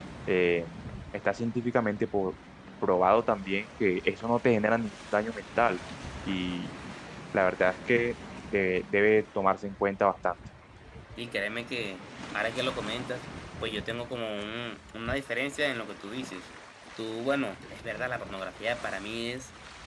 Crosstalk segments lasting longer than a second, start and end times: none

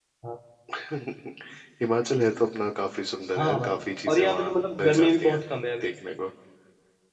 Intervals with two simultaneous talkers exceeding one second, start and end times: 3.4-5.4

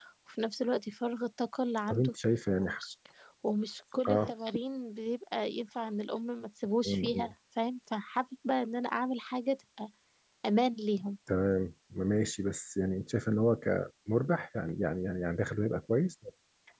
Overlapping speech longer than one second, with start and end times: none

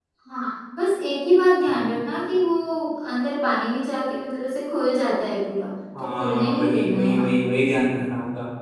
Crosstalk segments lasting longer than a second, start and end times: 6.0-7.5

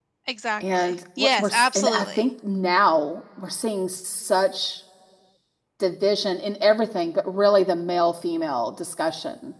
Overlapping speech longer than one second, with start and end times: 0.6-2.3

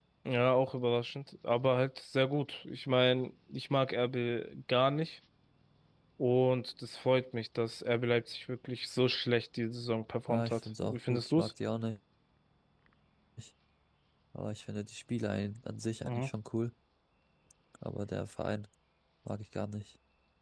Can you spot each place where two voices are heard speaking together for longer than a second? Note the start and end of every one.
10.3-11.5

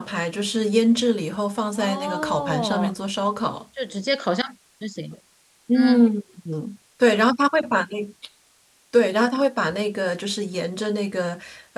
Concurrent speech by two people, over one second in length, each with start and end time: 1.7-2.9

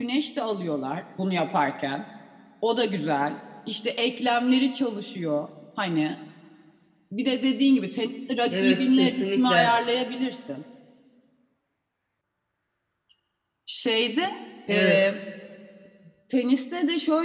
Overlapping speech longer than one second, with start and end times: 8.5-9.7

